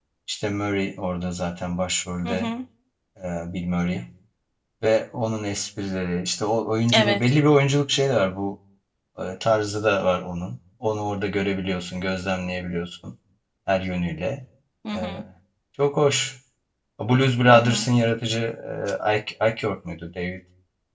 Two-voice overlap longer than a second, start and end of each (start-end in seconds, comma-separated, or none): none